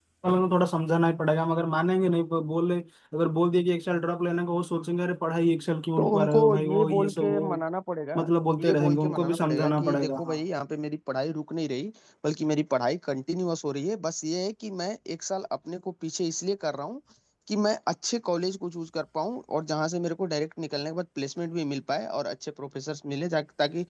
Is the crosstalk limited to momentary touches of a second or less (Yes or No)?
No